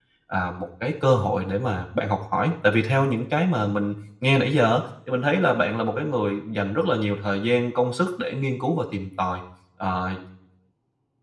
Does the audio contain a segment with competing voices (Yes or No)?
No